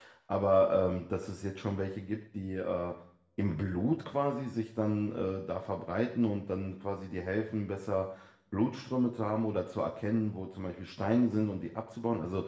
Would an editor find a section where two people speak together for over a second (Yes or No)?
No